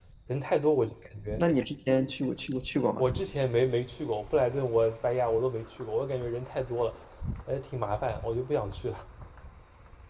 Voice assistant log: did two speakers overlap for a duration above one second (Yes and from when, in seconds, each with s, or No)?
No